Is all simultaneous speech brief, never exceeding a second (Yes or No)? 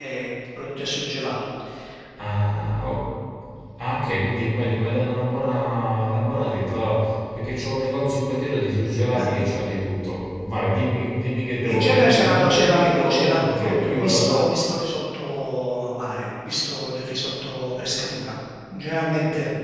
No